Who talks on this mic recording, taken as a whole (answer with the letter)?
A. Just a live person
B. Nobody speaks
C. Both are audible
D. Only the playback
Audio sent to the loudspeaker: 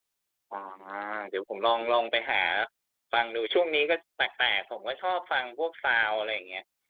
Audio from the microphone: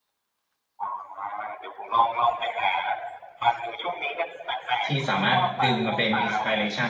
C